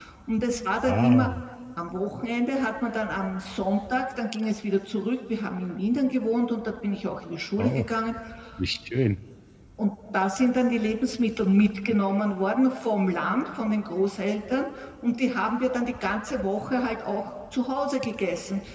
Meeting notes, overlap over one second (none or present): none